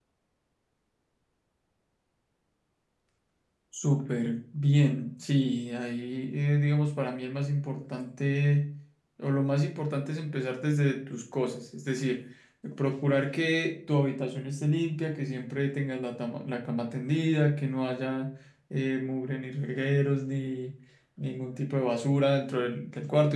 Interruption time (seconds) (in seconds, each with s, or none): none